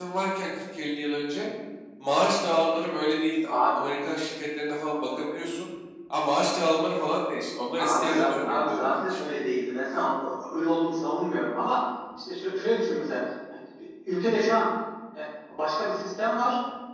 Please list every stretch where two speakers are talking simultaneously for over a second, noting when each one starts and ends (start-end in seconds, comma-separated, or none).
7.8-9.2